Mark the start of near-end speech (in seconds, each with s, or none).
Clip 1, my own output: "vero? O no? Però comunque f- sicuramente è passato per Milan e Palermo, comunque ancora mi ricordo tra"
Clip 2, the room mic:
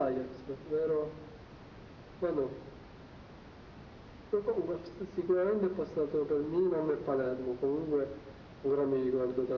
none